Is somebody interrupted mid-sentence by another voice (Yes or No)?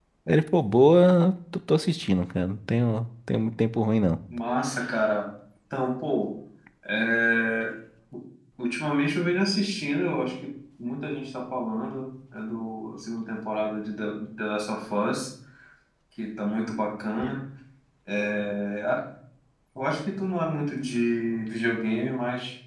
No